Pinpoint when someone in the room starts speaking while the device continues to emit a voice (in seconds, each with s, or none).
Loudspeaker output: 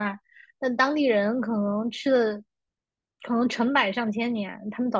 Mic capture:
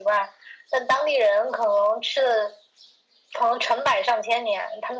none